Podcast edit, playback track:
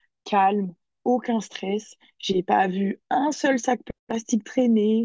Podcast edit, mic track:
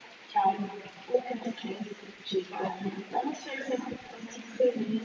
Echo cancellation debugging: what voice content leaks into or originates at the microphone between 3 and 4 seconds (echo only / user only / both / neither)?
echo only